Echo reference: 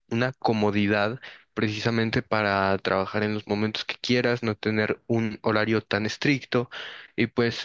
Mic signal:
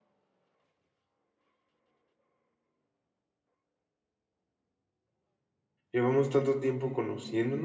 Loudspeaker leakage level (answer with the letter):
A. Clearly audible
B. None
B